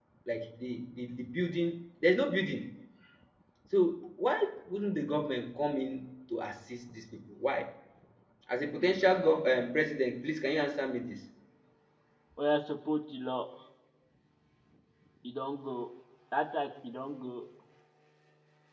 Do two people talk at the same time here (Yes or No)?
No